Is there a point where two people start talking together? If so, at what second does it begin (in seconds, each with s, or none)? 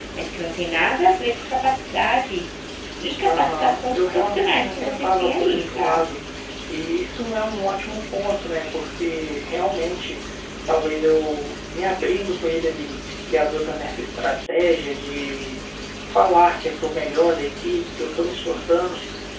3.2 s